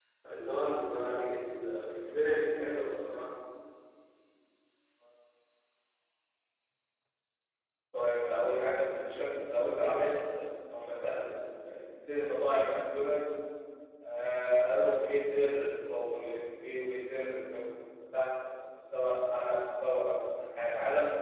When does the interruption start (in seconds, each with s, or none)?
none